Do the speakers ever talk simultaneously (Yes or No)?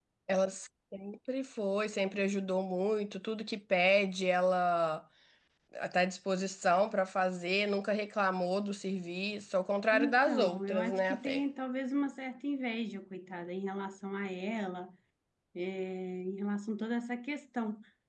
Yes